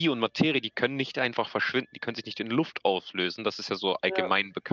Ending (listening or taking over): listening